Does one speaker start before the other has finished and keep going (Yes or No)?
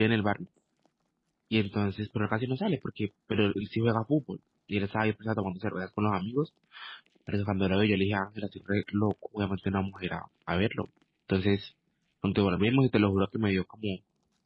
No